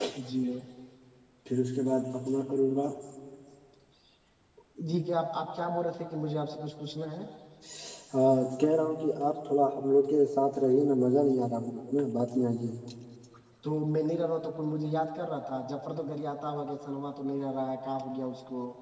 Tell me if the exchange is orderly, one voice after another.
Yes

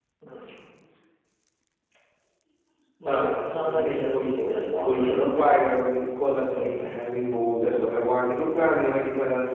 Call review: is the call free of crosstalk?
No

